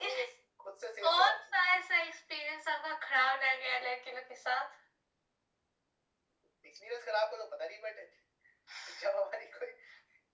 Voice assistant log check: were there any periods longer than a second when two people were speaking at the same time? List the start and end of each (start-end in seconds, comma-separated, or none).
none